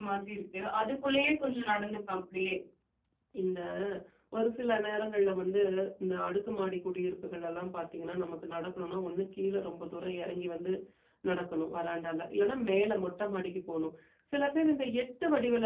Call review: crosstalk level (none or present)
none